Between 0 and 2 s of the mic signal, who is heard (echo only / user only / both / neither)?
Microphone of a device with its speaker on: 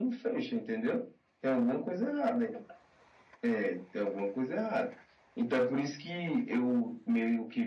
echo only